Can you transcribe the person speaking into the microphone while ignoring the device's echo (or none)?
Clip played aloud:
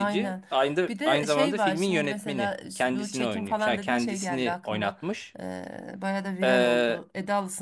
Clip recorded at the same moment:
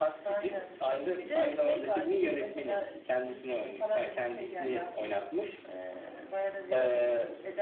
none